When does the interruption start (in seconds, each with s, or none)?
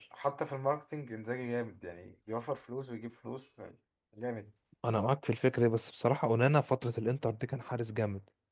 none